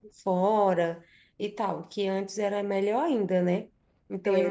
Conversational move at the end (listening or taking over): taking over